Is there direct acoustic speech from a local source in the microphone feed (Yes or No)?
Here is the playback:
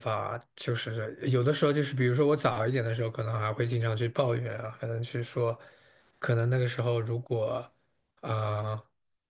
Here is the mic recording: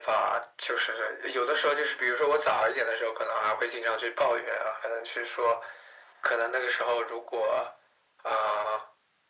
No